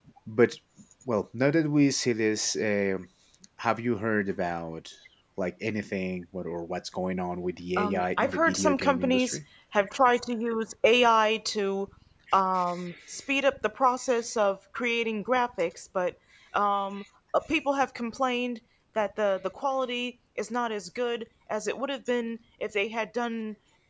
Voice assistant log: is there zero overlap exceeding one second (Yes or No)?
No